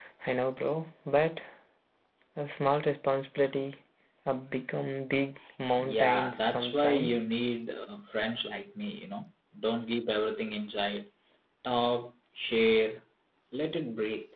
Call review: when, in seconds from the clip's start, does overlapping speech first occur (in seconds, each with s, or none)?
5.8 s